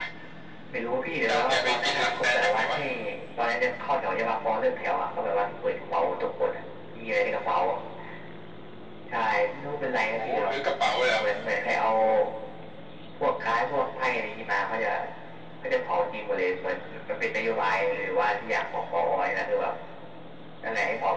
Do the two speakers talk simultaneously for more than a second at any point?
Yes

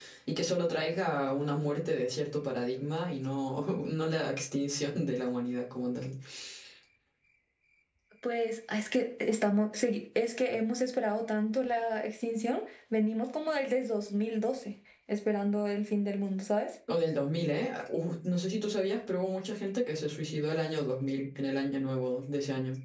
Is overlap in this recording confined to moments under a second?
Yes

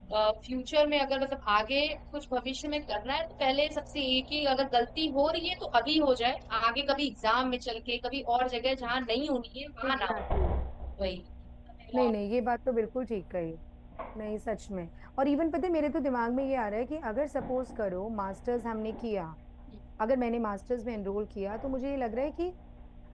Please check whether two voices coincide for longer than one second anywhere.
No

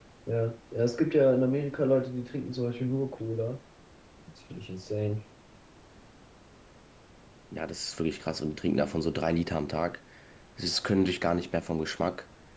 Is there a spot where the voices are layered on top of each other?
No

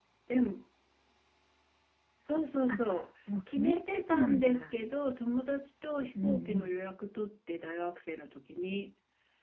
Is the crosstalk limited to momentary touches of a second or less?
No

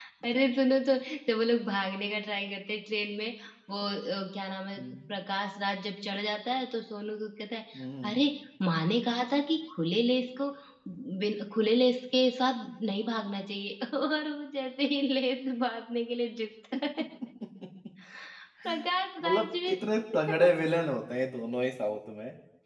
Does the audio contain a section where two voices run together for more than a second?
No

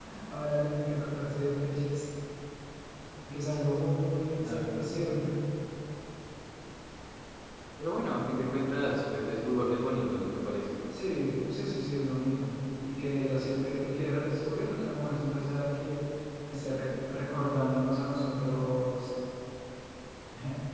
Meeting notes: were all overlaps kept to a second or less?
Yes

